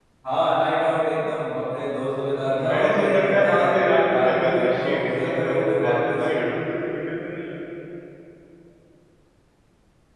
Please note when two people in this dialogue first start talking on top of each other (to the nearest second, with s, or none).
2 s